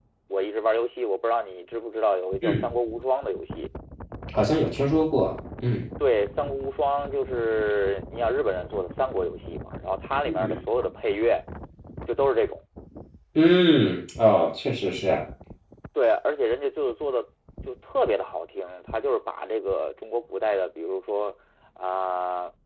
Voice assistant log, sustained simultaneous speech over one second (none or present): none